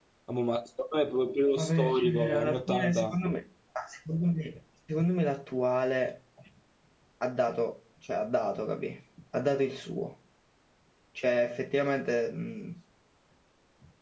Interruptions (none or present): present